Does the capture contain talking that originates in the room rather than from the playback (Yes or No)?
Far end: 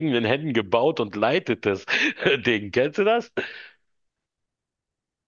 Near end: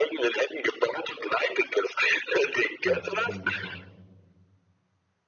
Yes